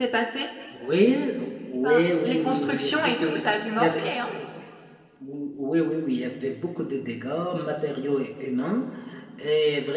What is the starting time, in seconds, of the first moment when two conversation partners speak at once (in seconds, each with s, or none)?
1.8 s